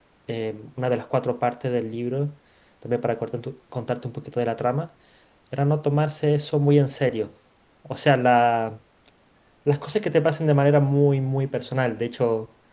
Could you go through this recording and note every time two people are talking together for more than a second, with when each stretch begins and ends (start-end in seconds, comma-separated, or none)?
none